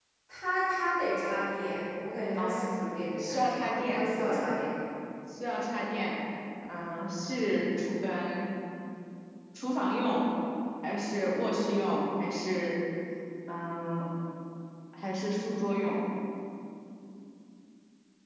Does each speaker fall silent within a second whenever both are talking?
No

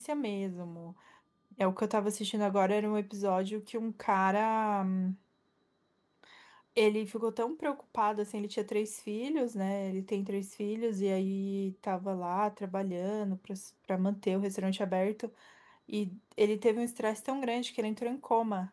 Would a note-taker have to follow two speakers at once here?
No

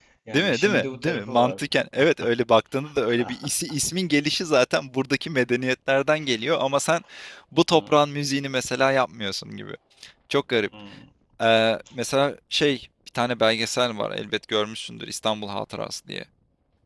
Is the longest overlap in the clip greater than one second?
Yes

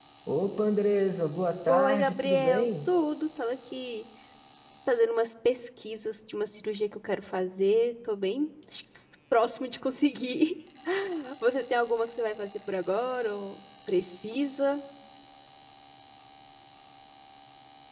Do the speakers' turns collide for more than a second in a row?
Yes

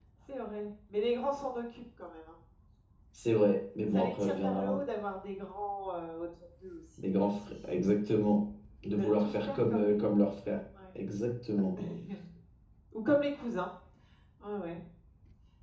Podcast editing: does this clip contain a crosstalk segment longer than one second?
Yes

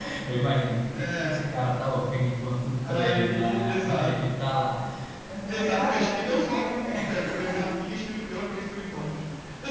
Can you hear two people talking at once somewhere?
Yes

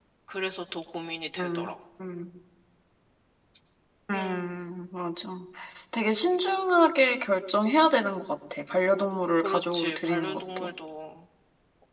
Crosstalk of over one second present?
Yes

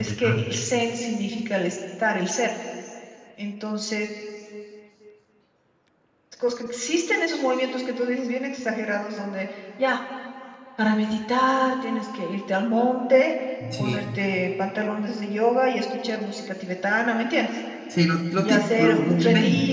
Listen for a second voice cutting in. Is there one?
Yes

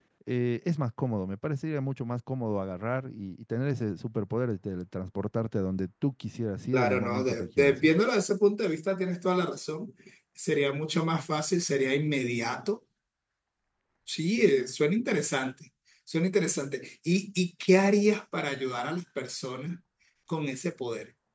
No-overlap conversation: No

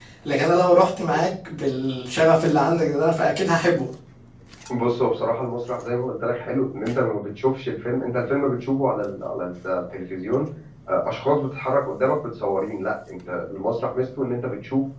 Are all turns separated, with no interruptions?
Yes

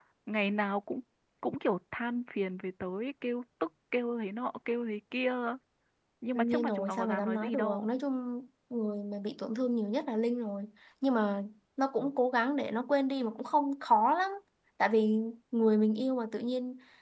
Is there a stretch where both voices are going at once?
Yes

